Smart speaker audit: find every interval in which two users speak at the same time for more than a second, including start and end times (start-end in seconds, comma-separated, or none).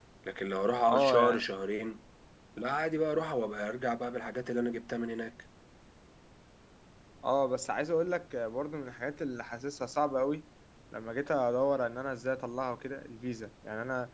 none